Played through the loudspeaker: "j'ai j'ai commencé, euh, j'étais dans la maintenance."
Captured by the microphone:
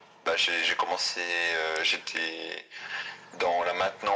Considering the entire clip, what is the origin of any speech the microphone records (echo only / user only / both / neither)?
echo only